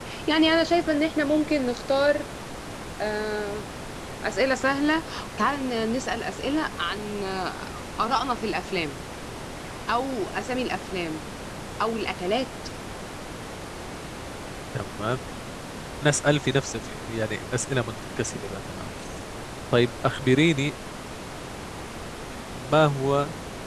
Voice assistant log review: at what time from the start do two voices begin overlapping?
none

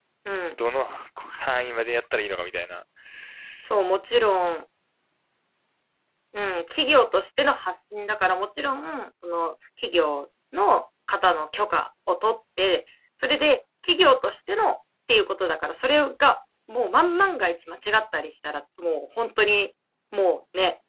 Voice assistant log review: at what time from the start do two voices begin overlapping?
none

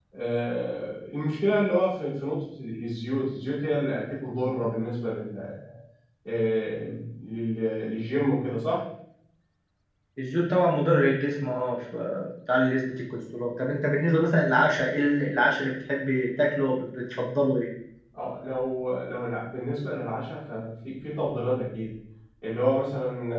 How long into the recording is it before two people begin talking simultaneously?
none

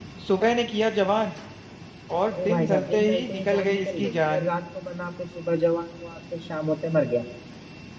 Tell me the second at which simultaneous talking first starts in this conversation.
2.5 s

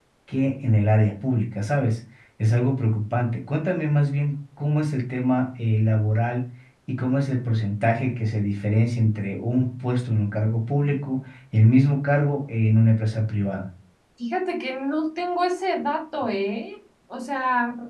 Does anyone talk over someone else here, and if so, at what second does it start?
none

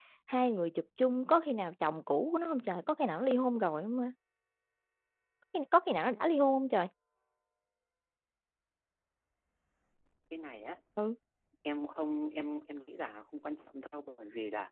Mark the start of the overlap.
none

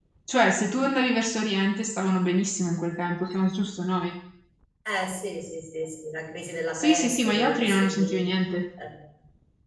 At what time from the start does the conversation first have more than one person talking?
6.7 s

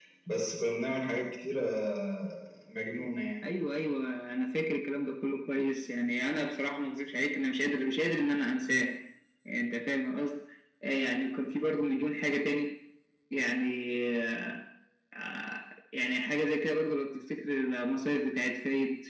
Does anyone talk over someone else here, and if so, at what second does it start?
none

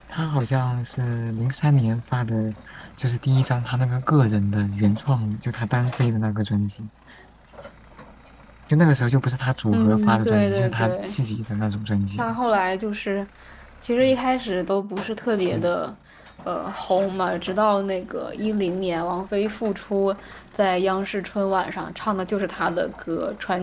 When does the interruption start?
9.7 s

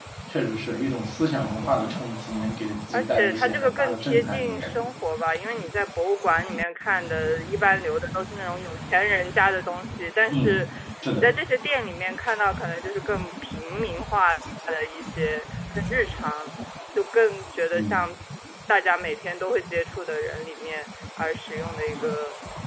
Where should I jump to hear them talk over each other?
2.9 s

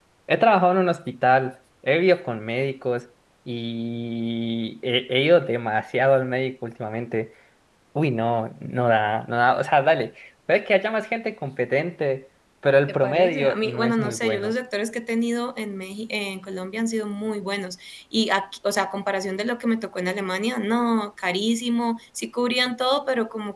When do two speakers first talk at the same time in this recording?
12.9 s

